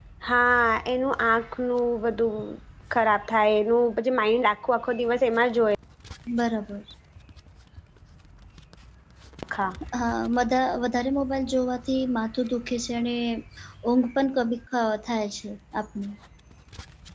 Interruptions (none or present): none